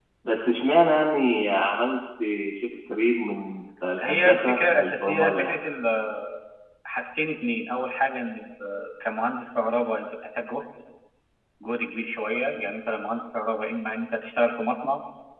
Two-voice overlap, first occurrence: 4.0 s

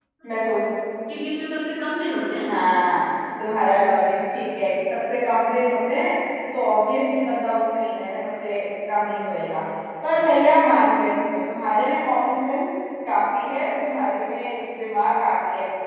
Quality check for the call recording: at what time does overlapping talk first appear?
none

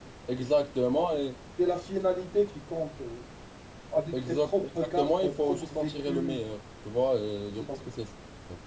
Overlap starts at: 4.1 s

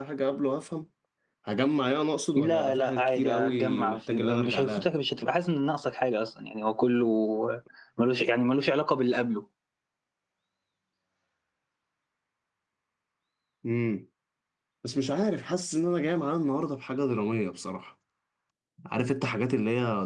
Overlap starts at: 2.4 s

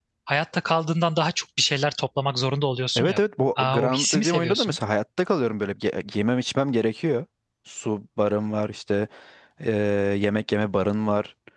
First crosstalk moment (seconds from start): 3.0 s

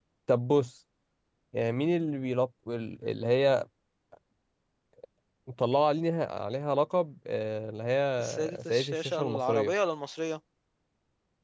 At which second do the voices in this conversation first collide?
8.2 s

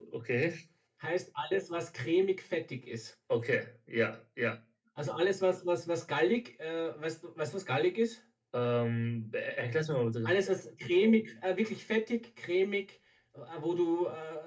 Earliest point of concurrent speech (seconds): none

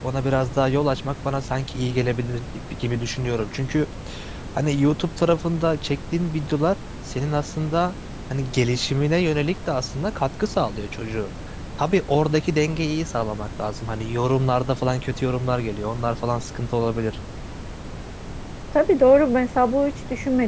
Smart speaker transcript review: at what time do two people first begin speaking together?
none

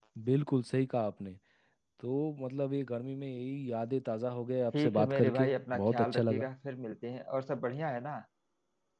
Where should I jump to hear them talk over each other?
4.7 s

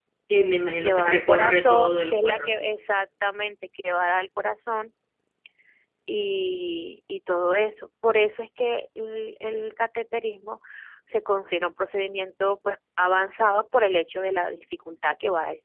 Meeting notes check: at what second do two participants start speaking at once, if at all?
0.8 s

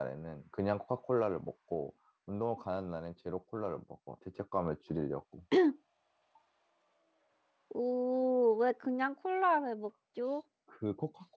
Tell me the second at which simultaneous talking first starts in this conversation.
none

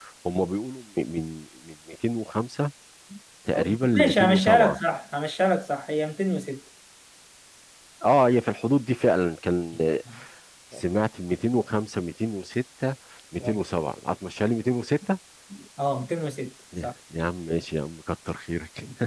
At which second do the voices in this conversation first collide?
3.6 s

